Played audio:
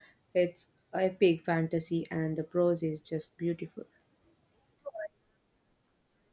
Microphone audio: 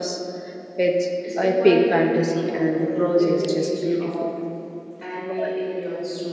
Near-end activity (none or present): present